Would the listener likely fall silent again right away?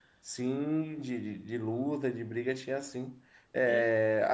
Yes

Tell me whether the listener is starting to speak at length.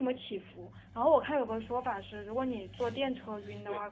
No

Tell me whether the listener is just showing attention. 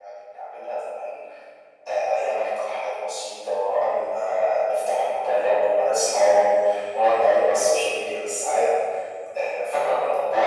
Yes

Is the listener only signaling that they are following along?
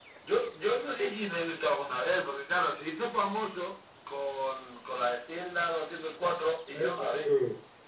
No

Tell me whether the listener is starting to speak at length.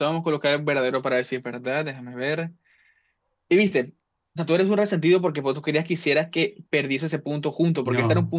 No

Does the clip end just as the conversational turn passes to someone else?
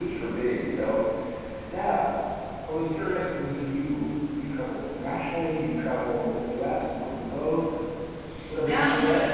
Yes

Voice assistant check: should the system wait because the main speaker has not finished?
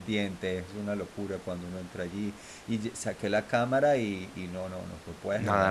No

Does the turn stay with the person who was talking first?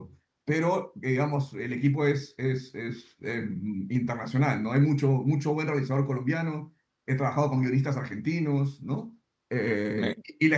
Yes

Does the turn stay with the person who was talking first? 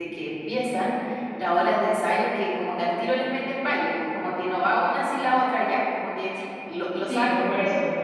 No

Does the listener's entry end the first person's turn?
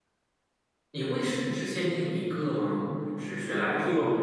Yes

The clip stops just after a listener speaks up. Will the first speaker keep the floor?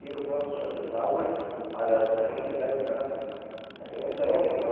Yes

